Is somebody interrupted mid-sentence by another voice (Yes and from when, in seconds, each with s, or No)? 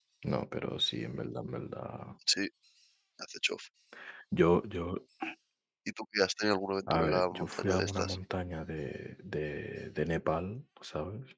Yes, from 6.9 s